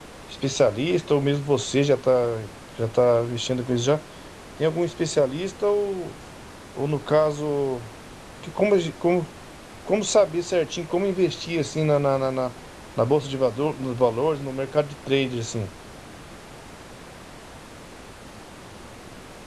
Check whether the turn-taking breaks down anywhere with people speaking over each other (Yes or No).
No